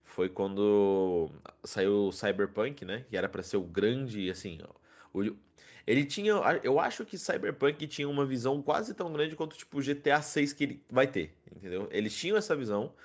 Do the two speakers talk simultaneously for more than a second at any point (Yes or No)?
No